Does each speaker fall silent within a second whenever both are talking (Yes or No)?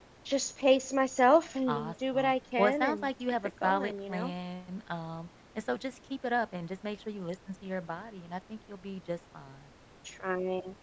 No